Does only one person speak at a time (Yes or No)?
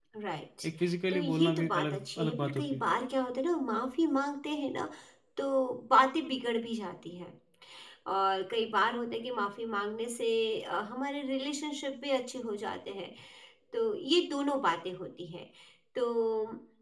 No